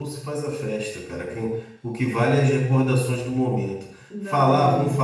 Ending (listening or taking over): listening